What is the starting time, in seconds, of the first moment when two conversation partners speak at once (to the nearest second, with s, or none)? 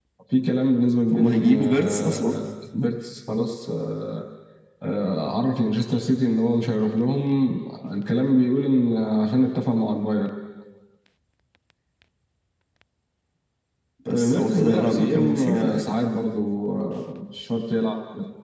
1 s